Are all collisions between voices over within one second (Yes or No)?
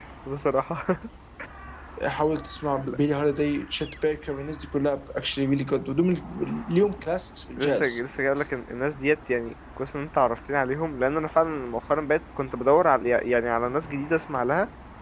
Yes